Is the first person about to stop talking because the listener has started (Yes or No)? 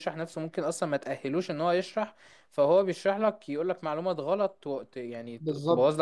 Yes